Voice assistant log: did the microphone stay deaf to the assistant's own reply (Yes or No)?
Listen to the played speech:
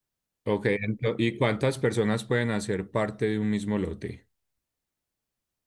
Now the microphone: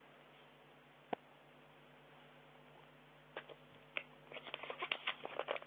Yes